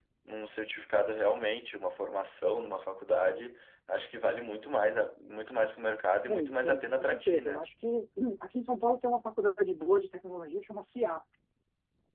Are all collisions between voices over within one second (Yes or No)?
No